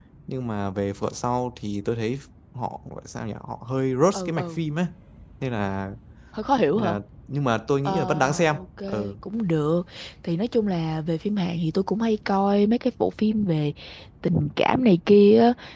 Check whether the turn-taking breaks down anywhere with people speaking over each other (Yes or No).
Yes